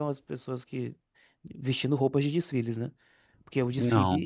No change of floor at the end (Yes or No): Yes